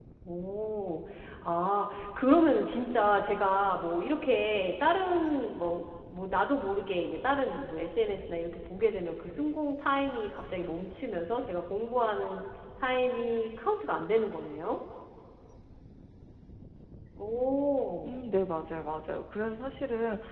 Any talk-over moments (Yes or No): No